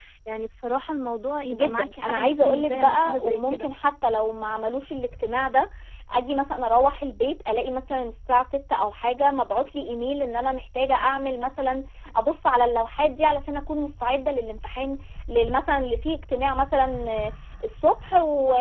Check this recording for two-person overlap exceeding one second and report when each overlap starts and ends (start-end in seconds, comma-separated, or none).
1.5-3.7